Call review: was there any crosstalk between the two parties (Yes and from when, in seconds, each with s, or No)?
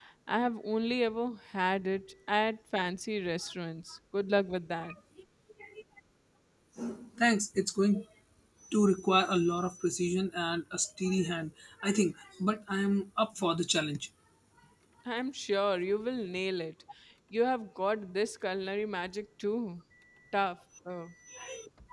No